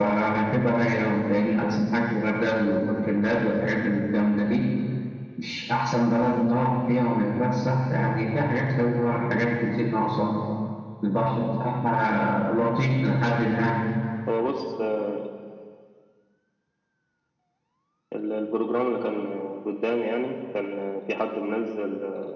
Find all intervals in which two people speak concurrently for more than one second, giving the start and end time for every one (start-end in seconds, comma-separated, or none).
none